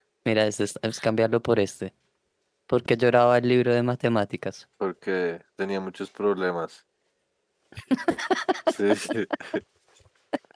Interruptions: none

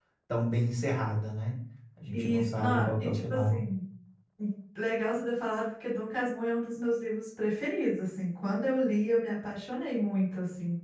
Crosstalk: present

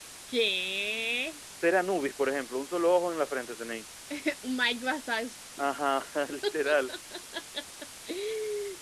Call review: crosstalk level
none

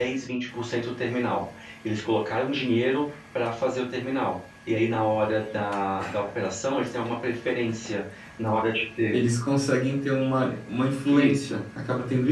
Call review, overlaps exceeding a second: none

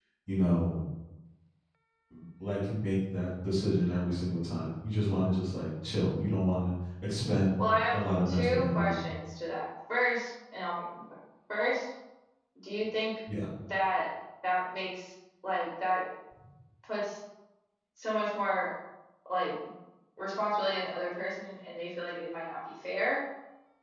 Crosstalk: present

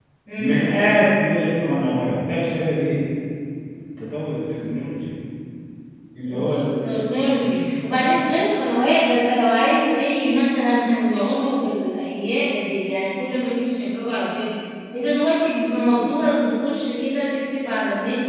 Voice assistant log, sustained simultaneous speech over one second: none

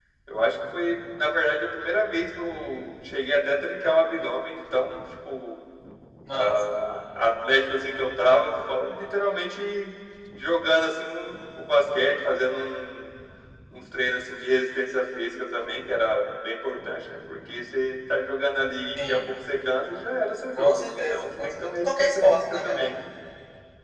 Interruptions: present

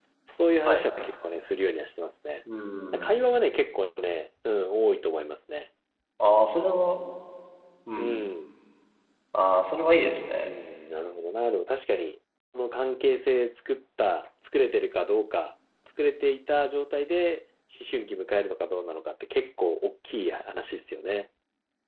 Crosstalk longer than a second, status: none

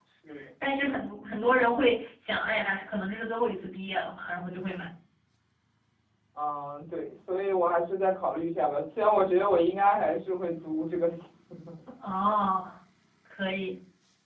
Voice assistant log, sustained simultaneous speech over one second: none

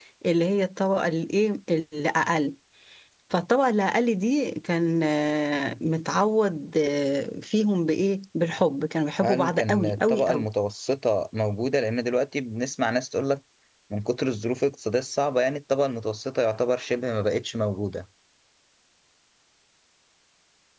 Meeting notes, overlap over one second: present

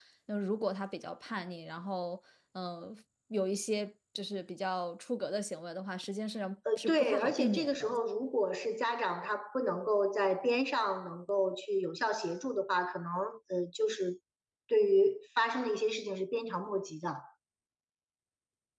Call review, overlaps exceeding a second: present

